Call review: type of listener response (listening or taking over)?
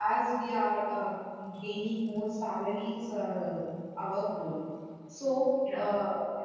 listening